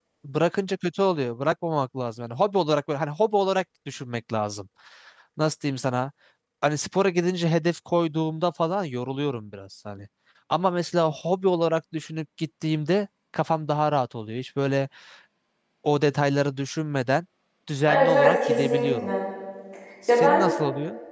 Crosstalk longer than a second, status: present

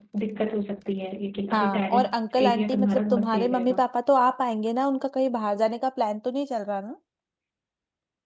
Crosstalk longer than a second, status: present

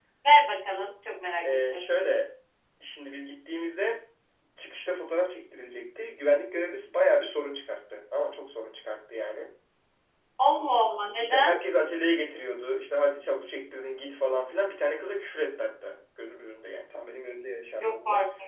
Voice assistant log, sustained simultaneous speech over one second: none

